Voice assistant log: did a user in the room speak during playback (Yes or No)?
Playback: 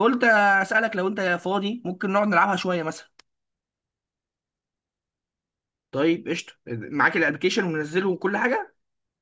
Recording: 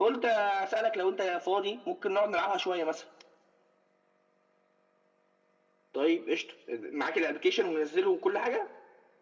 No